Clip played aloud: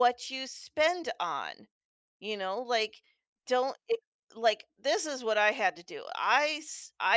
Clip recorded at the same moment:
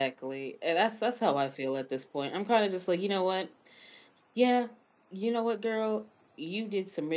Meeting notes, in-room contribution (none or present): present